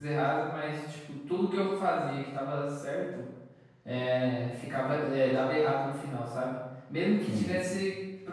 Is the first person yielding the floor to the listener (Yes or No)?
No